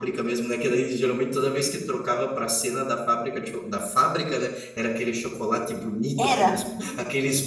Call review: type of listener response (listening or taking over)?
listening